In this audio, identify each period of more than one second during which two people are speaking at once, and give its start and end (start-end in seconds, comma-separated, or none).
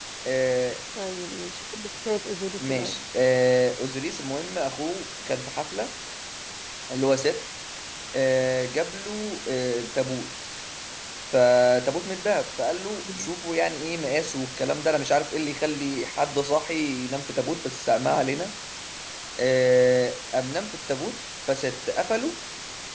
none